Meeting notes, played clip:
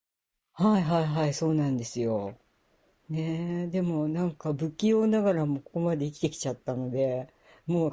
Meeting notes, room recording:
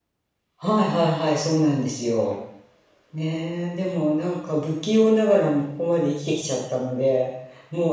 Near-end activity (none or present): none